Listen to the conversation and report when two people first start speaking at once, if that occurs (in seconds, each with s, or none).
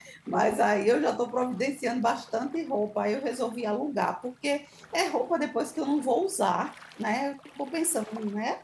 none